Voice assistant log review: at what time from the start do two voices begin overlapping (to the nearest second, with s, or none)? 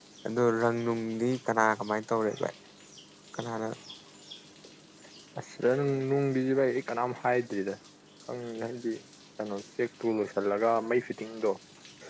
none